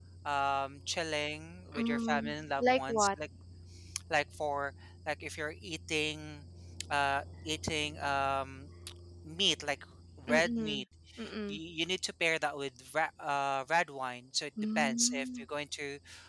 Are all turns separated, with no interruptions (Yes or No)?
No